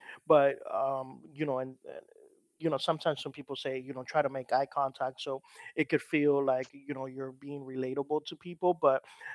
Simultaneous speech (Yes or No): No